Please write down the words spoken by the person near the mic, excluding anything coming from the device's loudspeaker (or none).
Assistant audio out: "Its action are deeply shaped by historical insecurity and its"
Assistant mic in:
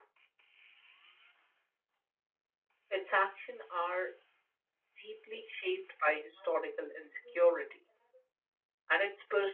none